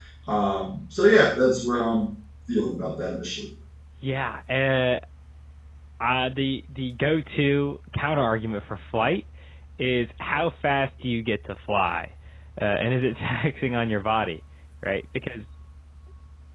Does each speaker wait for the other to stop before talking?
Yes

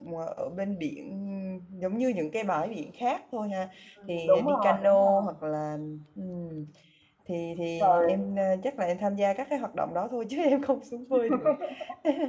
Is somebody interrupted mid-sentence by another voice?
Yes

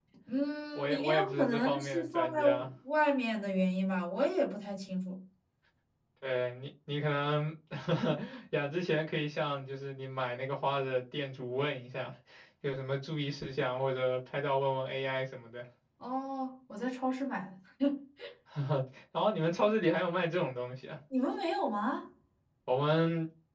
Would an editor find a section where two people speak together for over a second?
Yes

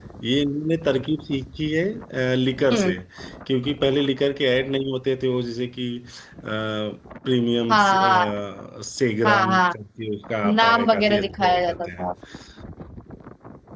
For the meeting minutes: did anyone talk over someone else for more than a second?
Yes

